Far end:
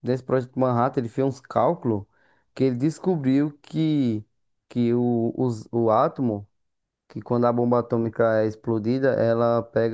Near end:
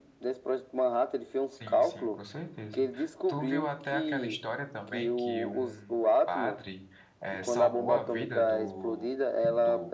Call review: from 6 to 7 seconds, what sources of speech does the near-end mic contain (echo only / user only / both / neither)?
both